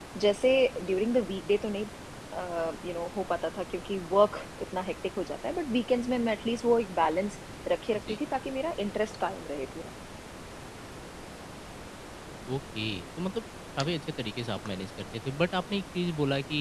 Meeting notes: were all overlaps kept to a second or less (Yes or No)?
Yes